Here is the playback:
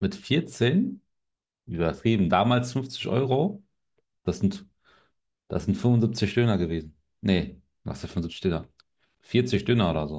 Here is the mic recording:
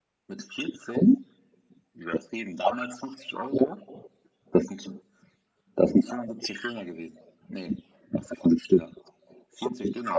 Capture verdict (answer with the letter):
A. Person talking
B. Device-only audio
B